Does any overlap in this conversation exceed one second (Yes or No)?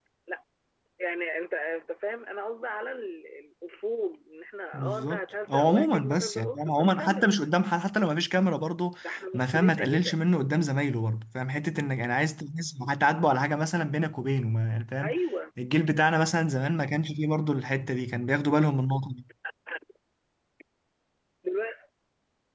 Yes